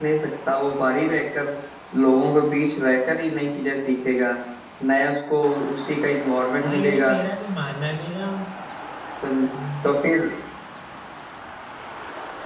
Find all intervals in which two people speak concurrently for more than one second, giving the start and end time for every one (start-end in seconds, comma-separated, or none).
none